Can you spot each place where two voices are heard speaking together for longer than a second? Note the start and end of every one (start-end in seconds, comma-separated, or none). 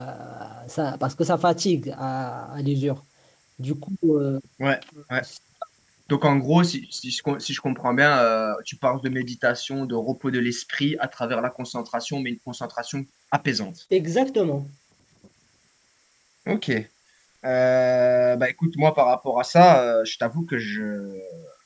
none